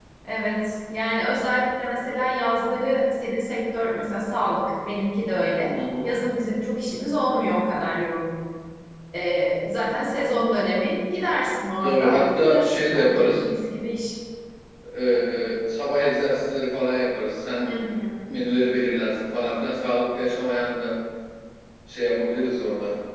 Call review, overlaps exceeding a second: present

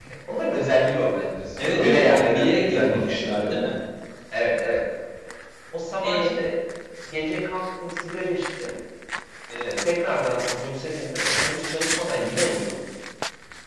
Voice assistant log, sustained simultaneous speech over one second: present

